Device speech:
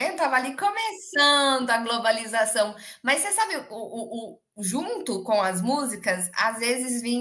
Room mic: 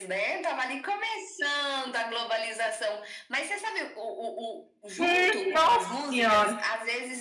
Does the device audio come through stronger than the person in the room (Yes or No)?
No